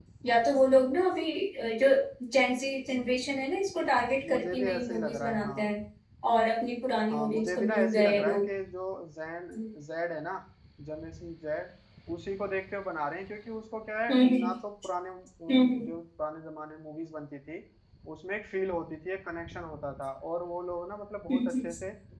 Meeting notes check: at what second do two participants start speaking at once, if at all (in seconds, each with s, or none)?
4.3 s